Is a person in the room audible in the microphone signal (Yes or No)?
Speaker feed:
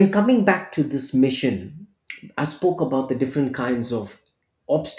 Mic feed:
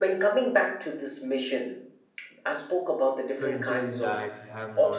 Yes